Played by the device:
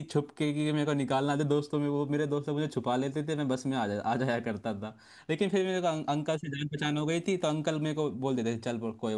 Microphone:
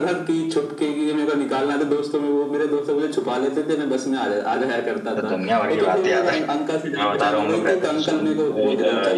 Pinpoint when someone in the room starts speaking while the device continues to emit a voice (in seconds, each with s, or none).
5.1 s